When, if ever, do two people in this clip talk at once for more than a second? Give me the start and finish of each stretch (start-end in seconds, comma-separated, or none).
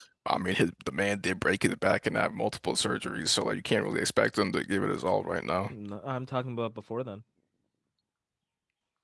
none